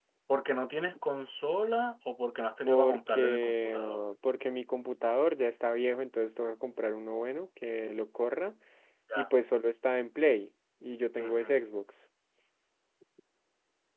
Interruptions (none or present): present